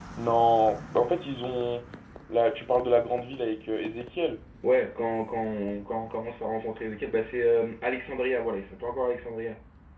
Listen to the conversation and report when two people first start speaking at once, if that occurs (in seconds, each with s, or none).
none